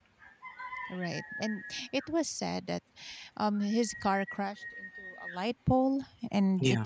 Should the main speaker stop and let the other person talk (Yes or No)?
No